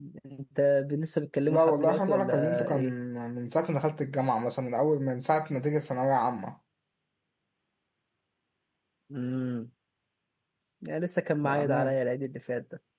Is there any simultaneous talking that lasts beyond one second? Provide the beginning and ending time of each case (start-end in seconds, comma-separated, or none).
1.5-2.9